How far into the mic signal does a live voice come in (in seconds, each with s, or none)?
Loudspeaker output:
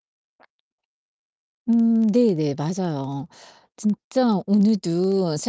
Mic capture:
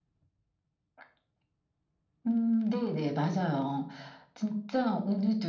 none